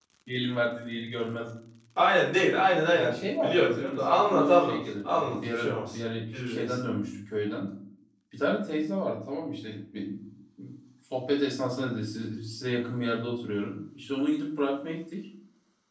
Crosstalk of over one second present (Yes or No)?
Yes